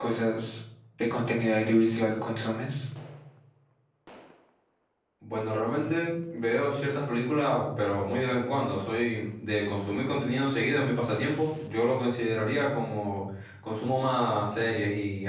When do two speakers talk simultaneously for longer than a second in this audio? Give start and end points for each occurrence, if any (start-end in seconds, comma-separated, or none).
none